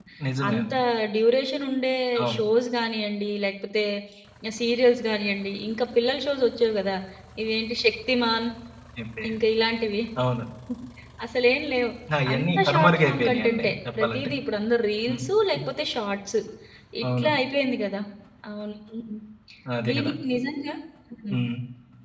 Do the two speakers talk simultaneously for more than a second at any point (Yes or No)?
Yes